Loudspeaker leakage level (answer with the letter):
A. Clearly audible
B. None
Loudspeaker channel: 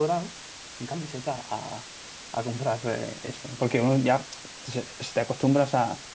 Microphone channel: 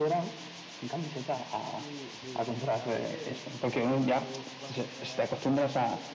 A